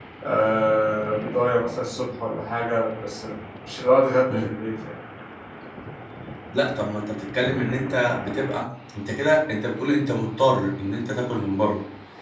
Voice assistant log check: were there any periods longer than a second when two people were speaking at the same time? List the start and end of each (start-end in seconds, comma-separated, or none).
none